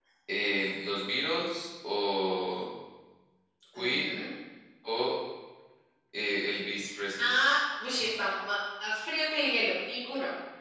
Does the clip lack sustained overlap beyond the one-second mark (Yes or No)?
Yes